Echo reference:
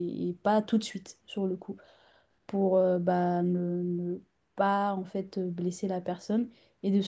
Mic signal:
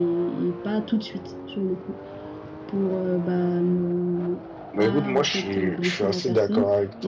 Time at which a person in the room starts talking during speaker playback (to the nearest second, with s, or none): 5 s